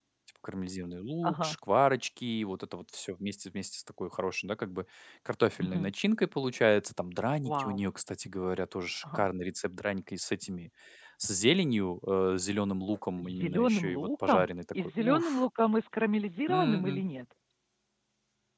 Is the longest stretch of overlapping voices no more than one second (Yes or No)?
No